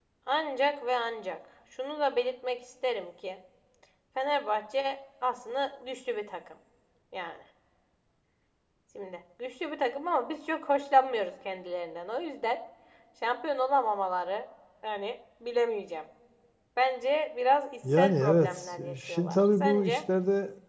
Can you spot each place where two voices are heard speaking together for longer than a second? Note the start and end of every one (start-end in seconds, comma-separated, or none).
18.0-20.0